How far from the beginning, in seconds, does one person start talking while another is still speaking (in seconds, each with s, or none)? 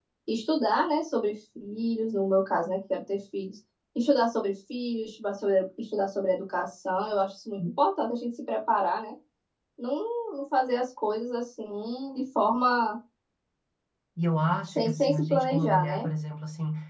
14.7 s